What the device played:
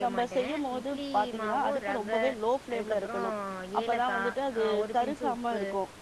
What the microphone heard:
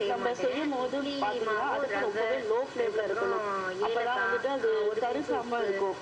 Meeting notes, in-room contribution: none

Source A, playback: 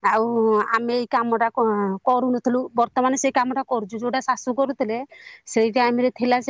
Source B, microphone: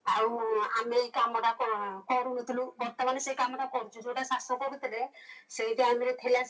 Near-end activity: none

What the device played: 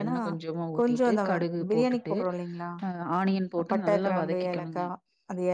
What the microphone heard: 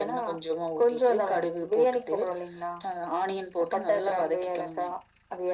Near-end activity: none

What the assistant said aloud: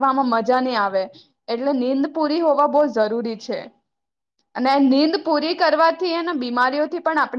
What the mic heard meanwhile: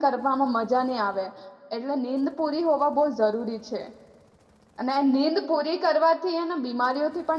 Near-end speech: none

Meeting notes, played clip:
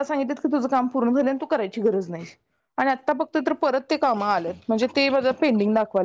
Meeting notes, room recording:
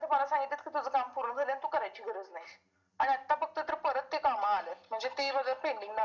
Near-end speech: none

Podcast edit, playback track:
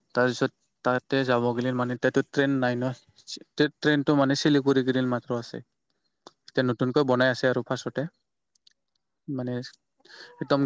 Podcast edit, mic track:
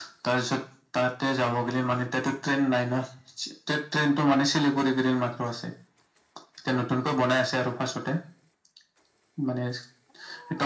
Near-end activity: none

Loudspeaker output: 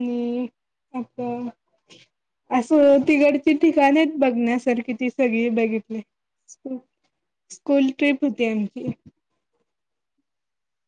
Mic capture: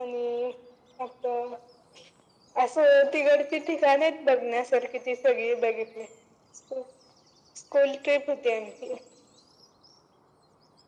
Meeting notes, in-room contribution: none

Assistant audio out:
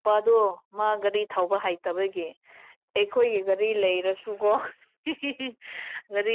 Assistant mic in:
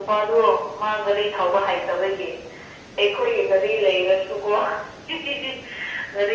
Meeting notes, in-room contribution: none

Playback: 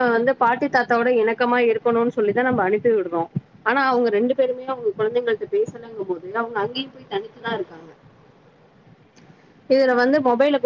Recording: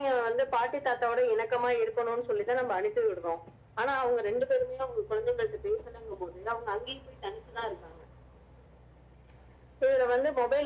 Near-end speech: none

